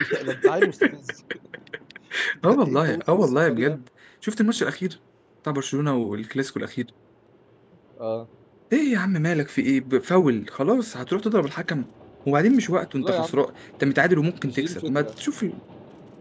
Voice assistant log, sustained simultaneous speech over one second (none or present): present